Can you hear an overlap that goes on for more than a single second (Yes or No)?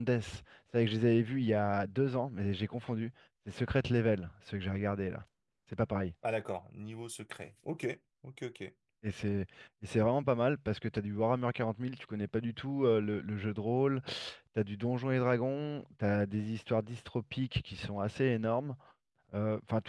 No